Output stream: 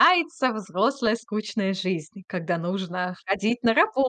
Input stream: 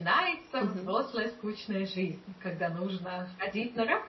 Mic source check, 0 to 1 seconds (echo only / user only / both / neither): both